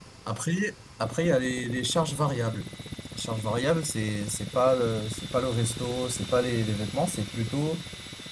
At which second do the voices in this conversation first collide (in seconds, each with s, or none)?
none